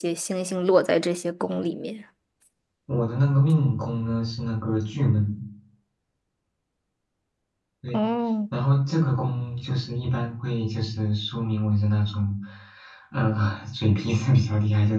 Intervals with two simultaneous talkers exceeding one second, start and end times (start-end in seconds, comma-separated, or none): none